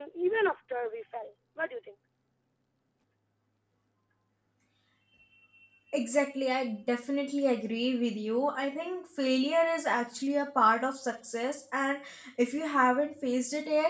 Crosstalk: none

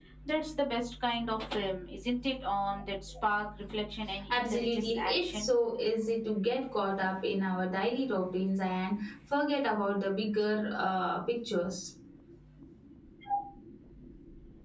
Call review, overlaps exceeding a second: present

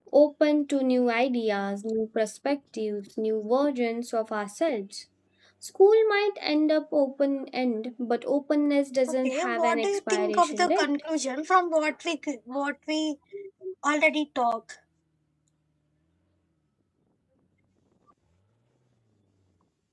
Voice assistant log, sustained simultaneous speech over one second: present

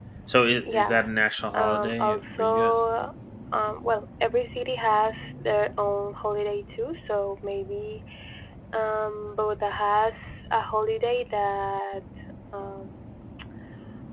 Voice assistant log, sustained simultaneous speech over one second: present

